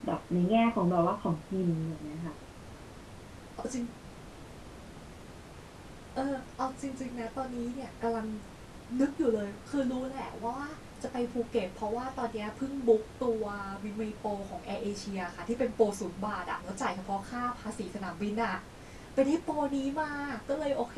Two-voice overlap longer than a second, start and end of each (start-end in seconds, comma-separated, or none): none